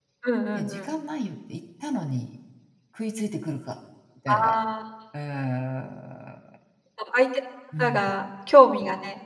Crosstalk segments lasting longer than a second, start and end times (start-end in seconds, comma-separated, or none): none